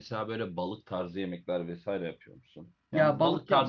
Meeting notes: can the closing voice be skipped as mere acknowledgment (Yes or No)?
No